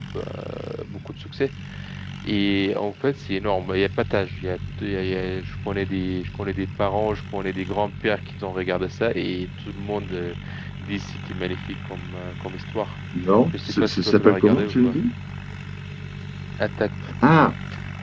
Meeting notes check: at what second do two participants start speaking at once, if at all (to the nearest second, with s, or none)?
14 s